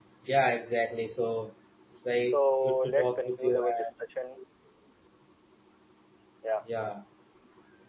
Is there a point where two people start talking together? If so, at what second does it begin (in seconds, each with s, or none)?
2.3 s